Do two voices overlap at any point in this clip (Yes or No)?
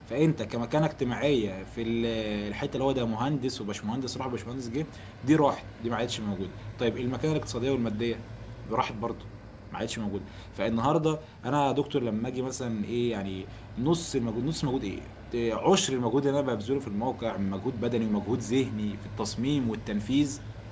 No